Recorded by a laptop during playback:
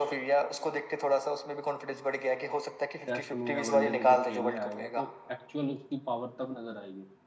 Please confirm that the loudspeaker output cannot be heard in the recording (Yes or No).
No